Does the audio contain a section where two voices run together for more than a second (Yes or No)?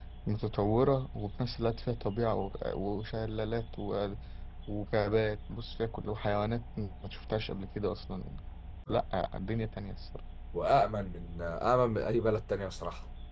No